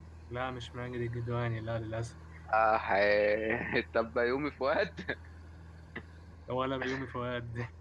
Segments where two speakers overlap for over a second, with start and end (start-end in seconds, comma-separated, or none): none